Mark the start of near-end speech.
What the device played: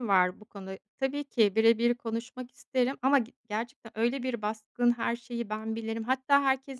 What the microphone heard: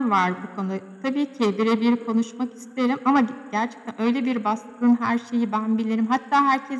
none

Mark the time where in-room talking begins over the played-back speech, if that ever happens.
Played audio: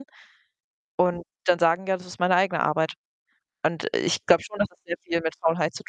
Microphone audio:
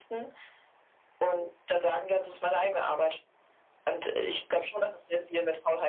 none

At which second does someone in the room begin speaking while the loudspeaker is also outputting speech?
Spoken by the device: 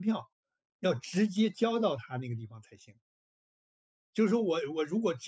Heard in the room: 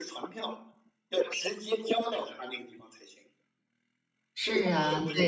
4 s

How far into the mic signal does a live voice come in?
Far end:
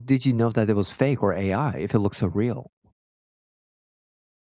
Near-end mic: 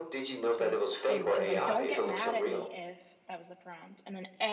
1 s

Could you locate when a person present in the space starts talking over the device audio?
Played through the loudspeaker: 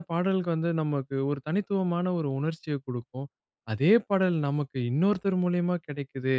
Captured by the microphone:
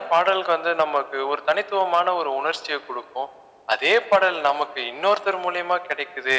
none

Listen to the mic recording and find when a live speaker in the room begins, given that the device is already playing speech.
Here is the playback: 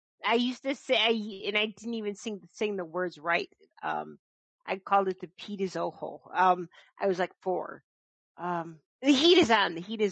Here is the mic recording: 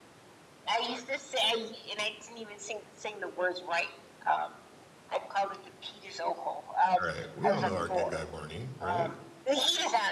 7 s

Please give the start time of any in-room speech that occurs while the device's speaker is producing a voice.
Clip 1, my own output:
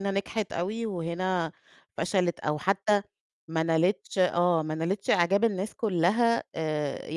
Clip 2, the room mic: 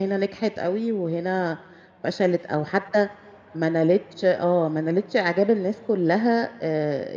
none

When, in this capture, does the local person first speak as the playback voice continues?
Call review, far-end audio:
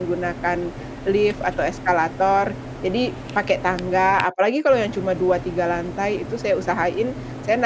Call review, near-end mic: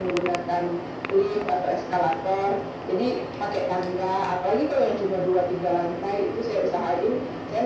none

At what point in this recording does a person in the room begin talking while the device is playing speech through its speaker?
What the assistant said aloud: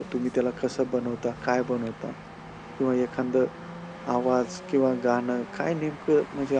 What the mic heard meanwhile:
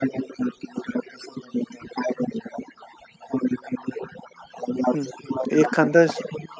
5 s

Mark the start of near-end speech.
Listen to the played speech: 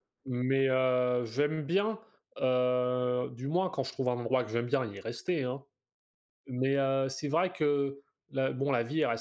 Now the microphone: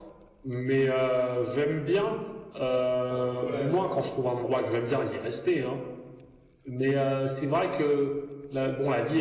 3 s

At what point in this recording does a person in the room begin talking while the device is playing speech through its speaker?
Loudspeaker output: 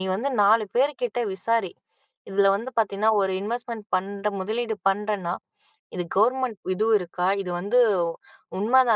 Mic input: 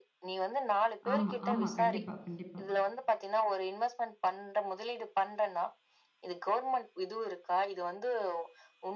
1 s

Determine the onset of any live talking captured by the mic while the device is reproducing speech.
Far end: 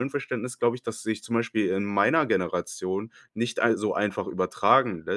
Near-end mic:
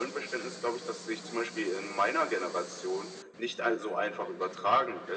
none

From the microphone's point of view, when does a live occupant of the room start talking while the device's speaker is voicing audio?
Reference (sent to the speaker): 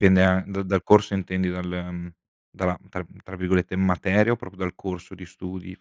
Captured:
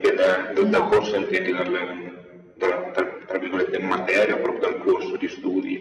1 s

